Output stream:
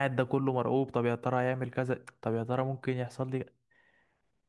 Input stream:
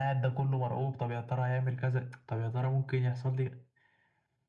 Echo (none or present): present